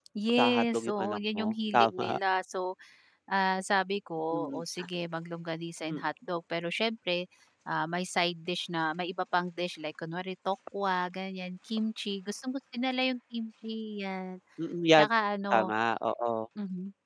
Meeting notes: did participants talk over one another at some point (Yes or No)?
Yes